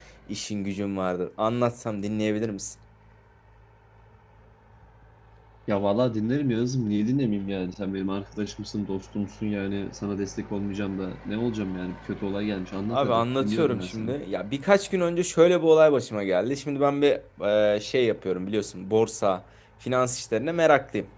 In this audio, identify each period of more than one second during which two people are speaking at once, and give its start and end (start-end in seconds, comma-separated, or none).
12.9-14.2